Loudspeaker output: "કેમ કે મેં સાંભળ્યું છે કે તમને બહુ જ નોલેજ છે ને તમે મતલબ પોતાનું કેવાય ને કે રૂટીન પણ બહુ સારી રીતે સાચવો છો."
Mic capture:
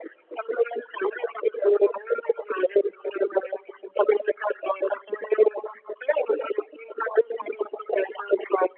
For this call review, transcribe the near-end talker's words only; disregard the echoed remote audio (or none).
none